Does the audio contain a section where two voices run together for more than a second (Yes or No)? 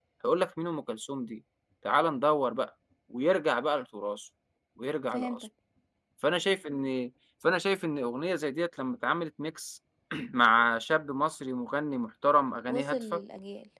No